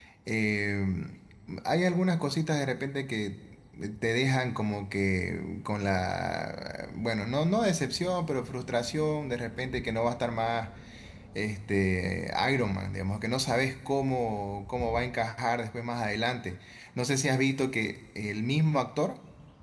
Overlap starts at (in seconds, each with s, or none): none